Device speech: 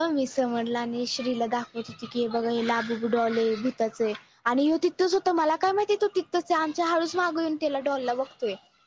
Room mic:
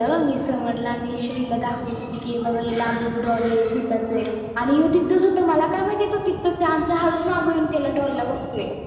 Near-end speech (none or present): none